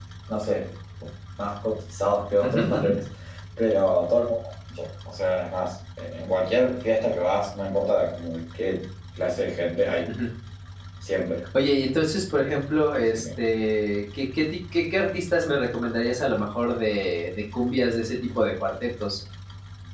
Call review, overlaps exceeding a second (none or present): none